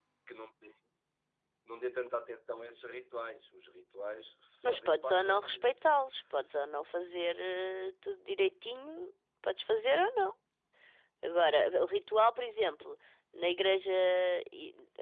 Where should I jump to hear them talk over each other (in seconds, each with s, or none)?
4.6 s